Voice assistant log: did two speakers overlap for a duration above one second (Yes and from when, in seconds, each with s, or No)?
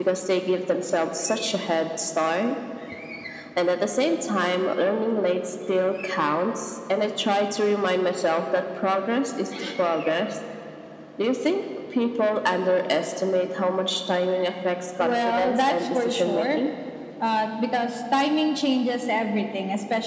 Yes, from 15.0 s